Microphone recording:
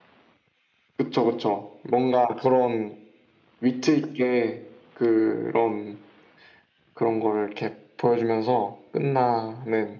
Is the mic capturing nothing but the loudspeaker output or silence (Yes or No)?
Yes